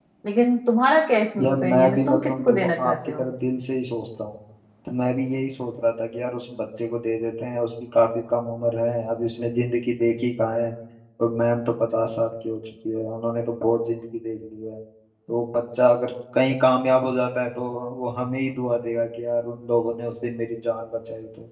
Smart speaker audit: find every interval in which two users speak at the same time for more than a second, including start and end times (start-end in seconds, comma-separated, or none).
1.4-3.3